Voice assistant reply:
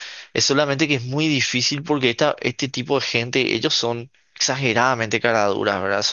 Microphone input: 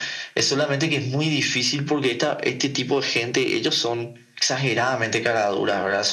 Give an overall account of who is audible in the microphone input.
echo only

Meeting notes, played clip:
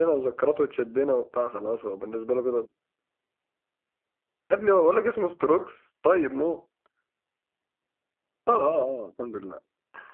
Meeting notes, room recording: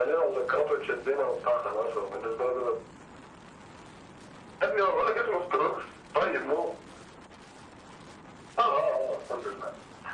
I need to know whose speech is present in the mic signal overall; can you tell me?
echo only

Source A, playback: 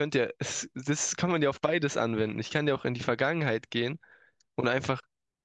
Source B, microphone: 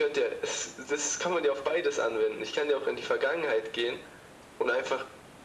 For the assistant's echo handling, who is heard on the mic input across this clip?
echo only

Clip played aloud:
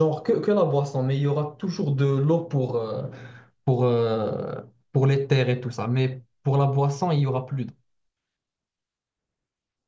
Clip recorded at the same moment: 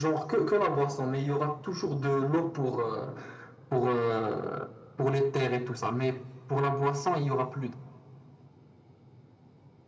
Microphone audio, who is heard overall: echo only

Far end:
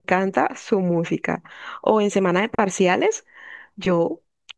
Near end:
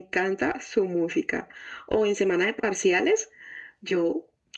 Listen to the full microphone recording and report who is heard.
echo only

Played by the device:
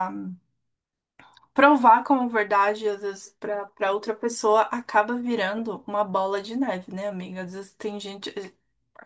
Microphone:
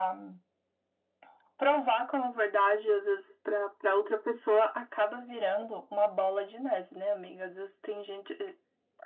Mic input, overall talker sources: echo only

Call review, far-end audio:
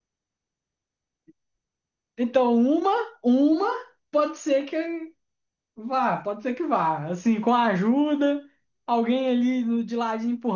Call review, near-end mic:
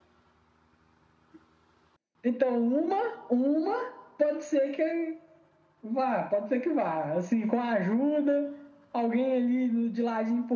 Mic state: echo only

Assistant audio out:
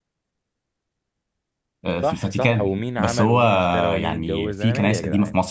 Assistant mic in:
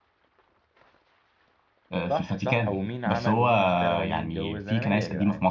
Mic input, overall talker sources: echo only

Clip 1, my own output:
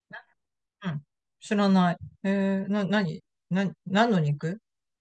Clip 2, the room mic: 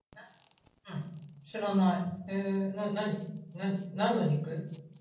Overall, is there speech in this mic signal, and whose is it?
echo only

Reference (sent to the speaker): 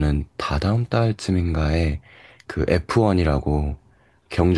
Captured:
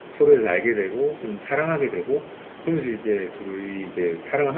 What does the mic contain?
user only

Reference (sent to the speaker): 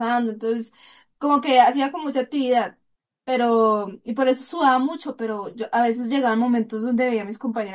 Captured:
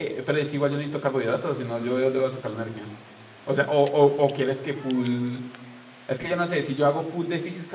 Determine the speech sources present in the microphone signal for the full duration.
user only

